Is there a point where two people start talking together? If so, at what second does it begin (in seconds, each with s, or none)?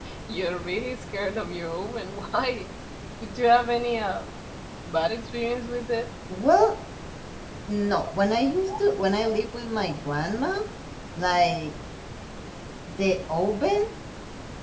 none